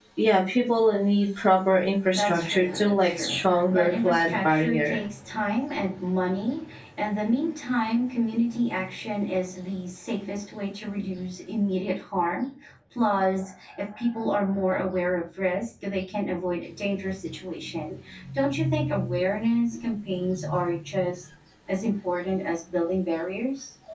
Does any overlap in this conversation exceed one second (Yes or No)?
Yes